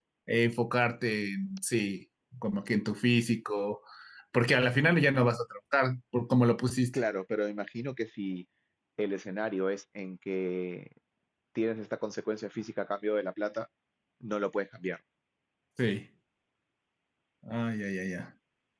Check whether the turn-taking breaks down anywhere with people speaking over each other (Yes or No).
No